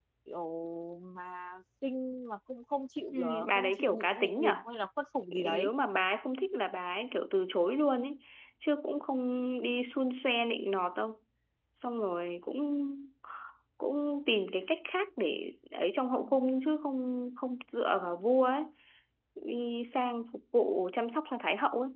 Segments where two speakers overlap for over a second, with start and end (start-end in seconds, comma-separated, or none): 3.1-4.5